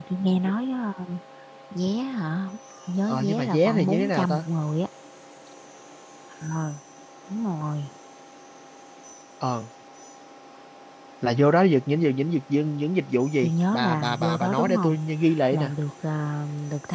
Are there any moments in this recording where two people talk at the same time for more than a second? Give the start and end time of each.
3.1-4.4, 13.4-15.0

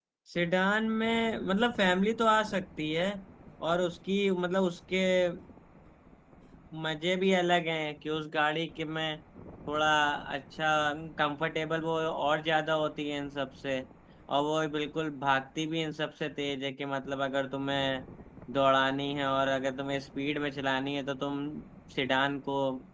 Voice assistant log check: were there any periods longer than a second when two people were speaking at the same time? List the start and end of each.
none

